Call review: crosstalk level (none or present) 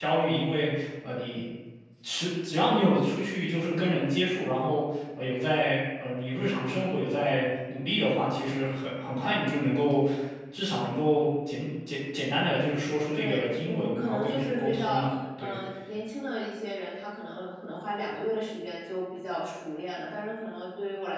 present